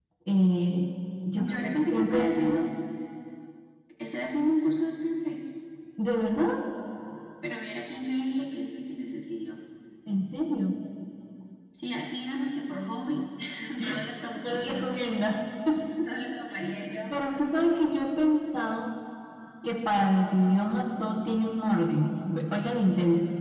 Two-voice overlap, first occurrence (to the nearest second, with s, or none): 1 s